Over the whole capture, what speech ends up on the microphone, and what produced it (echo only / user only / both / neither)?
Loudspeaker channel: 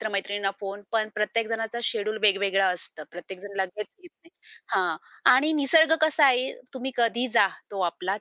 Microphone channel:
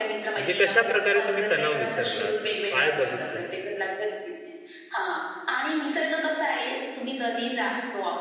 both